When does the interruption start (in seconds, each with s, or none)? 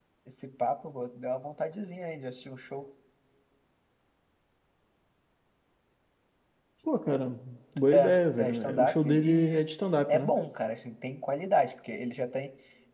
7.9 s